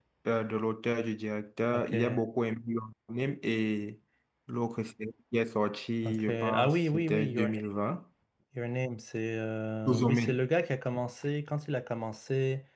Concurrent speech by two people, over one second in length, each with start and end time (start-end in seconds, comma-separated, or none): 6.0-7.5